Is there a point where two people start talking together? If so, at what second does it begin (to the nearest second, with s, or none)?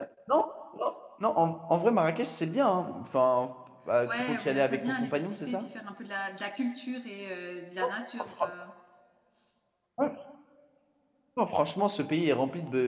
4 s